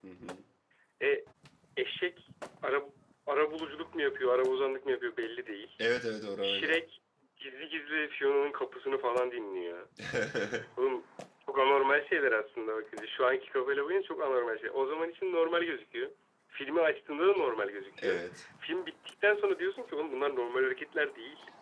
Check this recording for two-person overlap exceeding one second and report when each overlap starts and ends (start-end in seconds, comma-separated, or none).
none